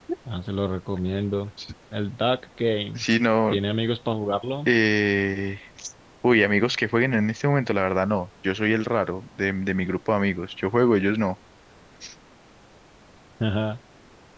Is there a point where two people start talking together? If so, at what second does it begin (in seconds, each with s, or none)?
none